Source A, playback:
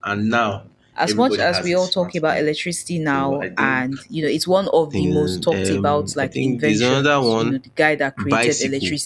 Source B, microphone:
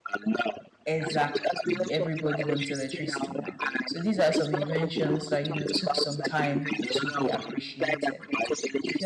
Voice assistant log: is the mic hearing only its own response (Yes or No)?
No